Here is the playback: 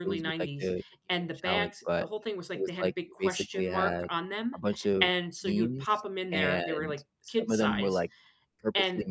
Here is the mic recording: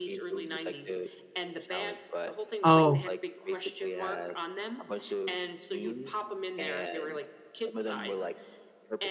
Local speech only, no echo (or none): Oh.